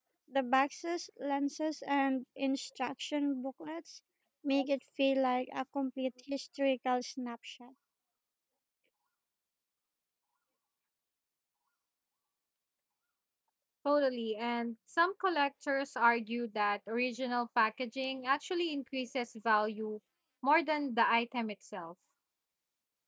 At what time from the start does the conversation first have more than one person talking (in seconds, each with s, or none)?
none